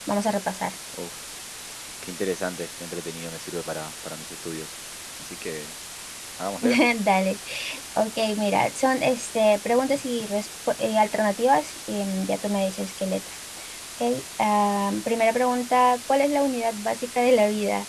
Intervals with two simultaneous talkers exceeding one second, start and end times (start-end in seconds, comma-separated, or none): none